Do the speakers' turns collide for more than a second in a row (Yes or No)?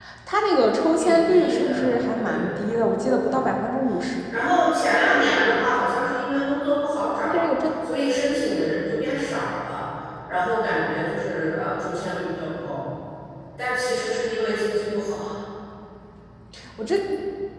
Yes